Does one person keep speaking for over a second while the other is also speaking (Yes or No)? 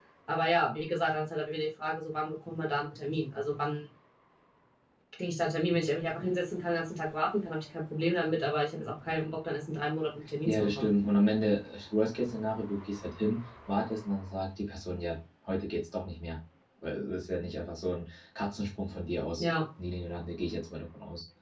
No